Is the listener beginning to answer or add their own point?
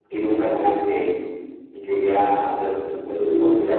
No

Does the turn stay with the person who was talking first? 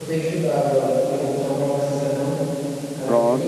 No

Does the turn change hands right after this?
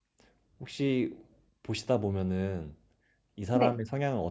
No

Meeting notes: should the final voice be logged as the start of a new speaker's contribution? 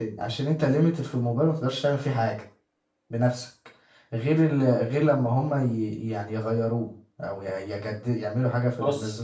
Yes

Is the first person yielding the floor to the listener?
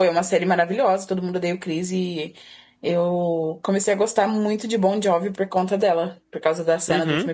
Yes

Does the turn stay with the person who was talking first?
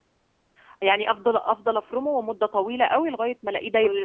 No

